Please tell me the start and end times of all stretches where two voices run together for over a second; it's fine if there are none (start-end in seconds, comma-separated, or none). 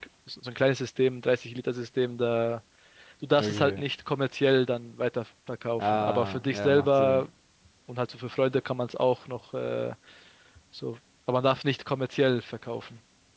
5.8-7.3